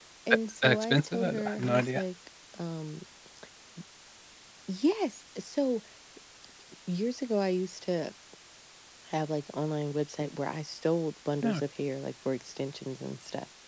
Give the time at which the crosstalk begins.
0.6 s

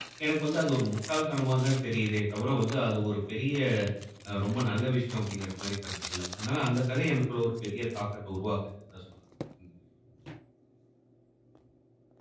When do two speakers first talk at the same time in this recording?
none

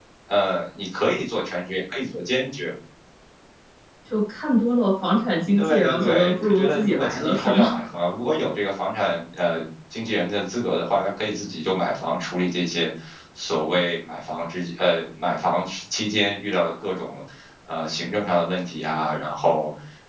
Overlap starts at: 5.5 s

